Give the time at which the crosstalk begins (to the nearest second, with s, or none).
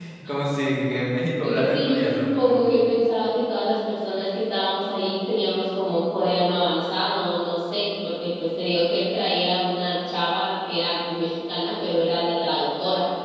1 s